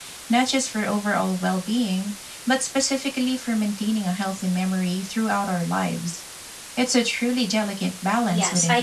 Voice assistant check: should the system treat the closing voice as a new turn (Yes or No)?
Yes